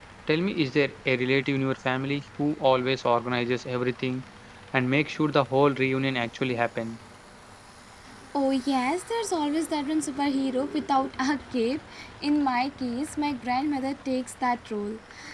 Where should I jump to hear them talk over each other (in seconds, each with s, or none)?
none